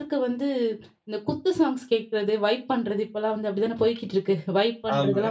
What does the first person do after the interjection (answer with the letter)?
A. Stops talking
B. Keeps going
B